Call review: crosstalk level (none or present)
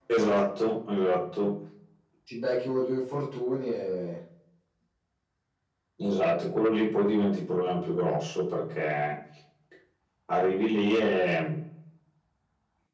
none